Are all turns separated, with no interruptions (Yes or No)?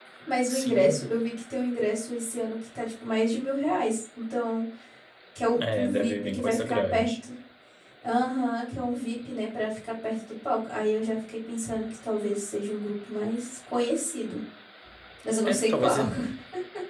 No